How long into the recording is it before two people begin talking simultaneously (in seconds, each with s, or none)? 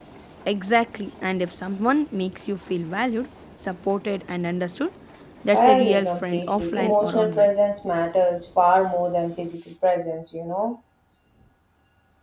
5.5 s